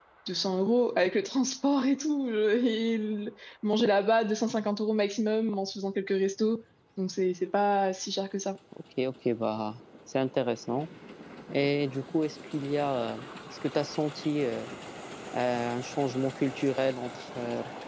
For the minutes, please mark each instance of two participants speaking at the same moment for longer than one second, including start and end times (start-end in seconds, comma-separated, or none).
none